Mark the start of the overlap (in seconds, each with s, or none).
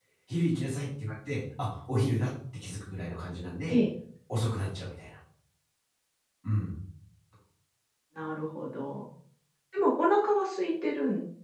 none